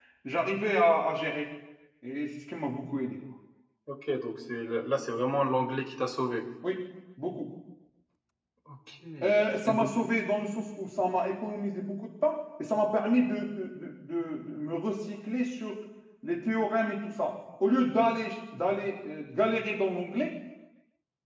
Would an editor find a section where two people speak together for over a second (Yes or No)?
No